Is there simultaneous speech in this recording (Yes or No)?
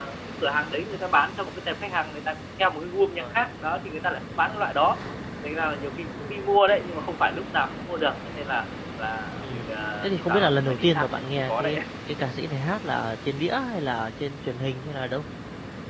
Yes